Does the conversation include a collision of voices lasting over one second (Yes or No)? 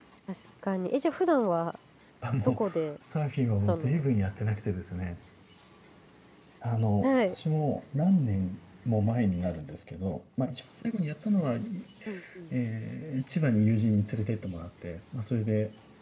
No